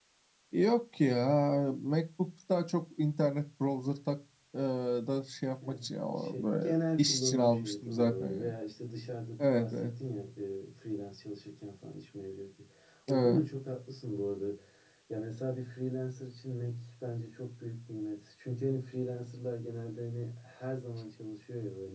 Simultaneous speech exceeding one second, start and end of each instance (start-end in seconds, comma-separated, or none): 5.7-8.5